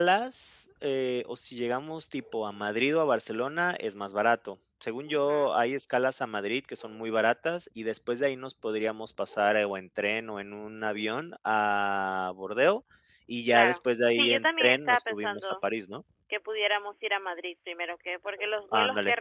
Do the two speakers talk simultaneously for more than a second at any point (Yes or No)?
Yes